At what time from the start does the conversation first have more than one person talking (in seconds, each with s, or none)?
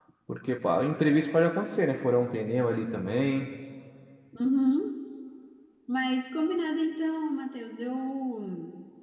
none